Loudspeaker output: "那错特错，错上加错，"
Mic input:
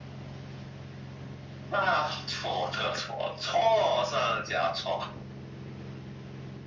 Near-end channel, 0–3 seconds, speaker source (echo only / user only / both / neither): echo only